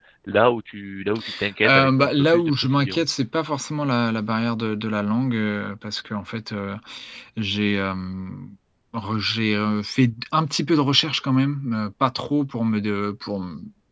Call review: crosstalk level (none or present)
present